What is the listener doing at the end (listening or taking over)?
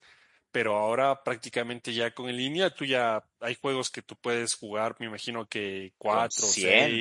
listening